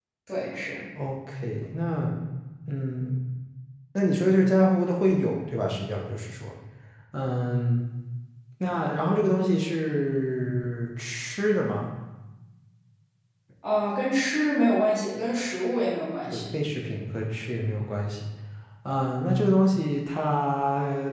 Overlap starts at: none

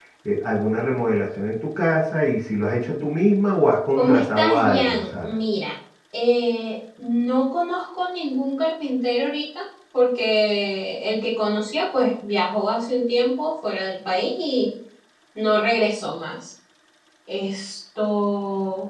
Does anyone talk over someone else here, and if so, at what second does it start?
4 s

